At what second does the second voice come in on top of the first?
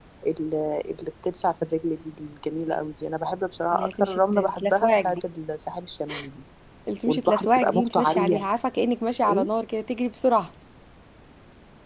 4 s

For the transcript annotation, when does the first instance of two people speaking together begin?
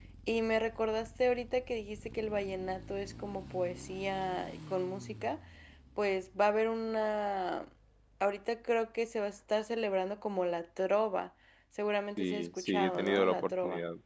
12 s

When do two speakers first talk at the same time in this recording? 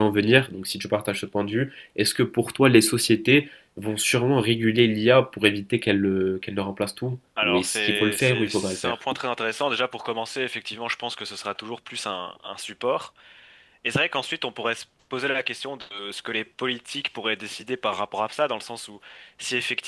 7 s

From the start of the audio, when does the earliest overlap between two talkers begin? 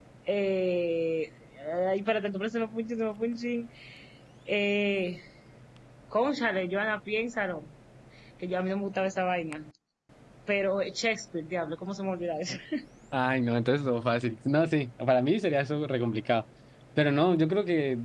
none

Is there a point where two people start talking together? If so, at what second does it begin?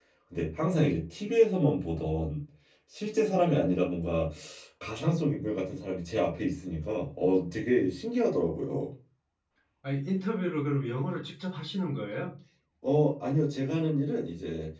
none

